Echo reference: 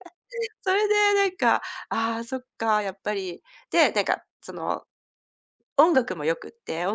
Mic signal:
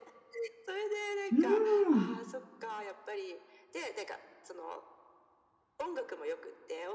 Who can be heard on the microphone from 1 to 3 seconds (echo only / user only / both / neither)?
both